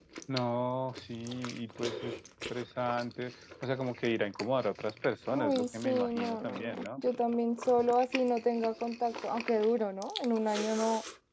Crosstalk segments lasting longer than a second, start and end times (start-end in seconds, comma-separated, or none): 5.3-7.0